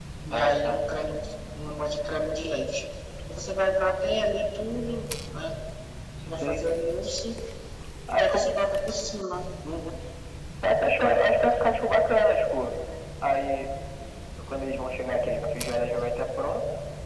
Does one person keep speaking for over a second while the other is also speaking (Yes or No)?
No